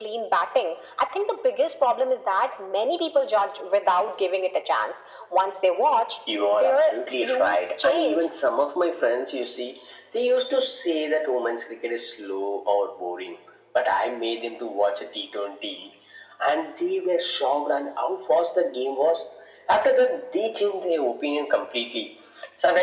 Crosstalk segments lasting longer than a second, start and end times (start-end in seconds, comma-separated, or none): 6.5-8.2